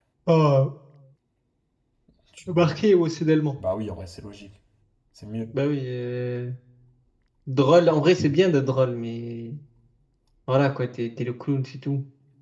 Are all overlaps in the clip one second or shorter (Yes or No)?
Yes